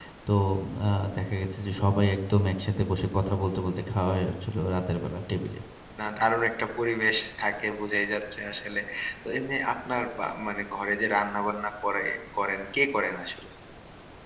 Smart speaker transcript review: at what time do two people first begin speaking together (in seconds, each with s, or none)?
none